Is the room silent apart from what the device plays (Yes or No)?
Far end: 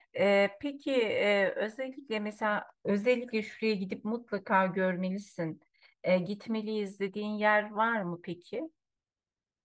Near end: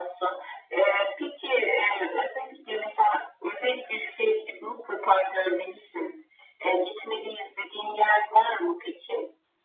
Yes